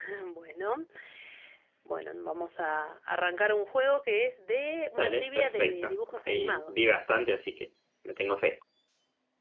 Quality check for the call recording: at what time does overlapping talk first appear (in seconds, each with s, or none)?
5.0 s